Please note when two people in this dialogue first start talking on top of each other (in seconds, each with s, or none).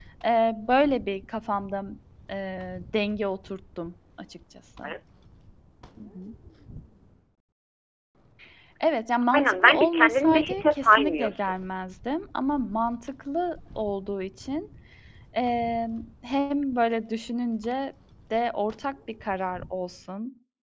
9.3 s